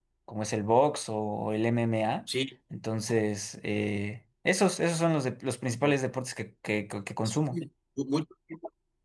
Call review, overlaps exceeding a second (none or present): none